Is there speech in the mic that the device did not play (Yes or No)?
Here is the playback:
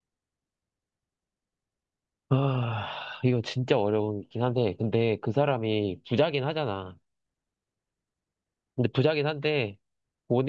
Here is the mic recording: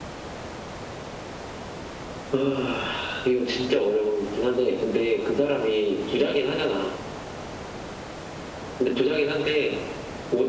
No